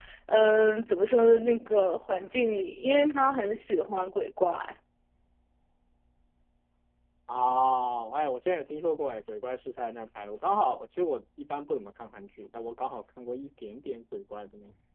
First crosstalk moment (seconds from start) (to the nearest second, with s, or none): none